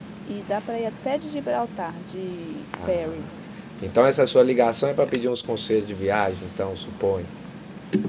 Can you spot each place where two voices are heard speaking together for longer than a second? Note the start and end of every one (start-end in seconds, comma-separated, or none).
none